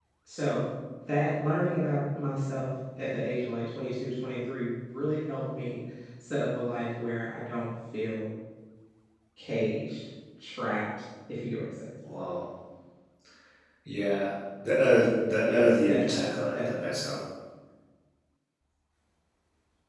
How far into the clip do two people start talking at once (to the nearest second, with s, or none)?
15 s